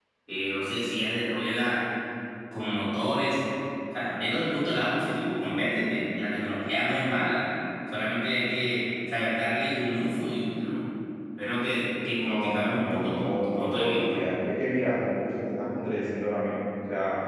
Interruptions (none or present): present